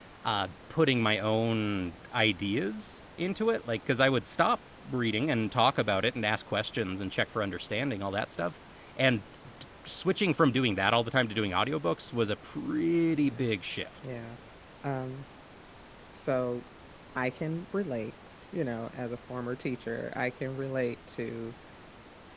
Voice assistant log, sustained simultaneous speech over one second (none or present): none